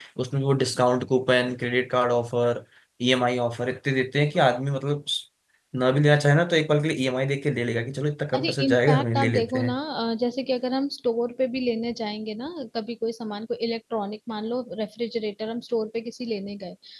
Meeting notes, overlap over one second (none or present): present